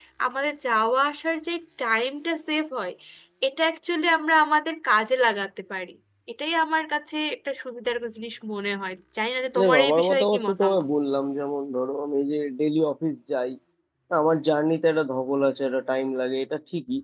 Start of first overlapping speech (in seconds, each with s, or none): 9.6 s